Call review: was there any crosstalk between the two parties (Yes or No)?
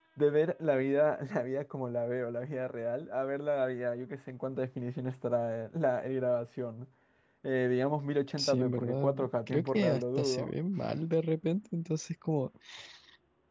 Yes